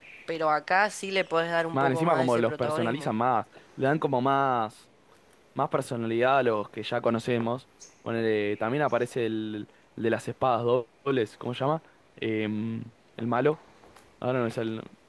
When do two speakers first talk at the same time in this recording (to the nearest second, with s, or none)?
2 s